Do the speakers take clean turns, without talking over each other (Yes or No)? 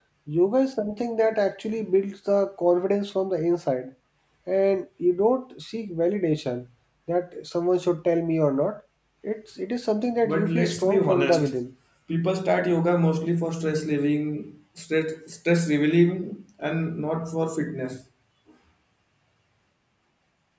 No